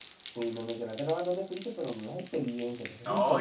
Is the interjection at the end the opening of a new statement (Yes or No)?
Yes